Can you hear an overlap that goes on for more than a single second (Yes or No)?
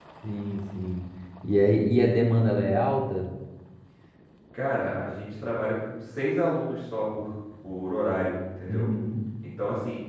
No